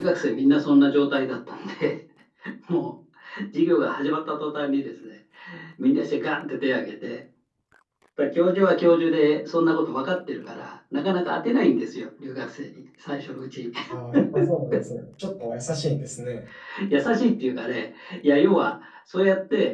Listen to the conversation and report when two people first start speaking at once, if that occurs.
none

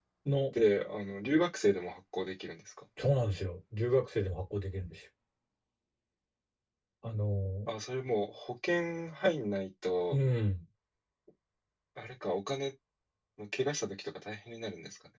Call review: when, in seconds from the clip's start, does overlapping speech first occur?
none

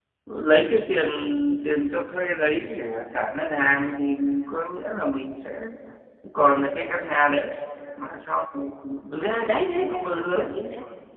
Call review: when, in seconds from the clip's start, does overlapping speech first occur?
9 s

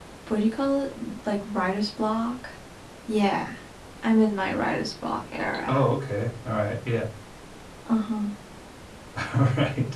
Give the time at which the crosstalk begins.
none

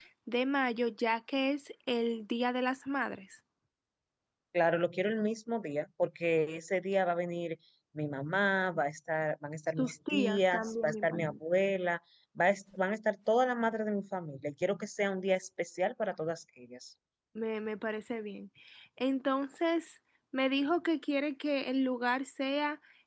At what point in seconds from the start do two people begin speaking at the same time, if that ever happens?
10 s

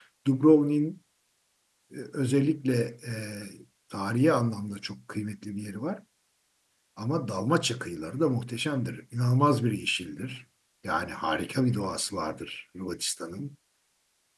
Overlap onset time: none

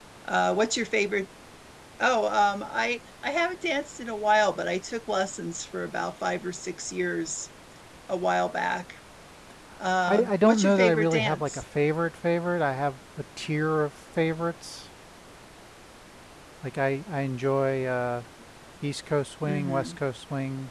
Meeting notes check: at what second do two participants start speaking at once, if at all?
10 s

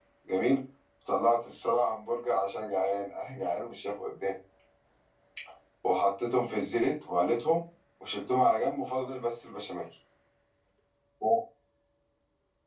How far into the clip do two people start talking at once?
none

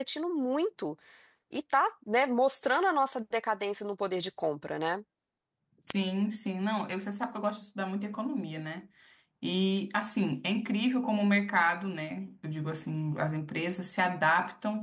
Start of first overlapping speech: none

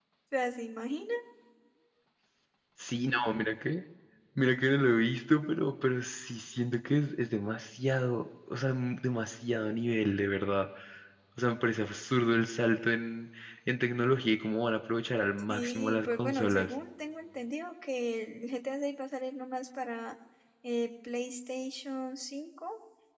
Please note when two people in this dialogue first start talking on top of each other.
15 s

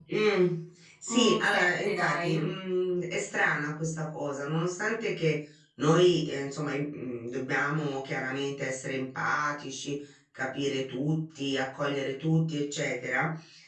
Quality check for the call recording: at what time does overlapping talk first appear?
1 s

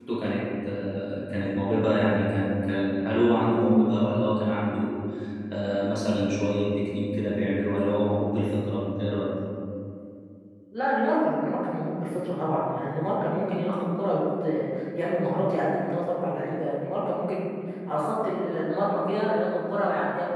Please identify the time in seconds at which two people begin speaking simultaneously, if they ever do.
none

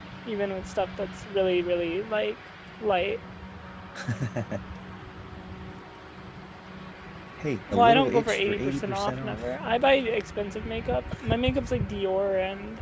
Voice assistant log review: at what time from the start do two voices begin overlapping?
8 s

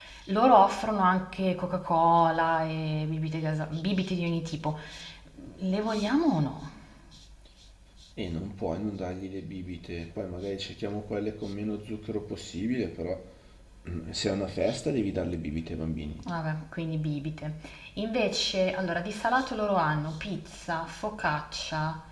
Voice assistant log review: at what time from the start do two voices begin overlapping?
none

